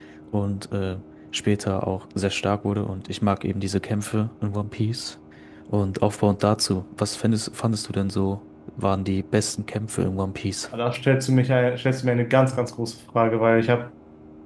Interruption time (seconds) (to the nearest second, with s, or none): none